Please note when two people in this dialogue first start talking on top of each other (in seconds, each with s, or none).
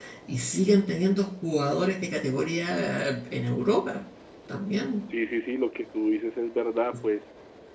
none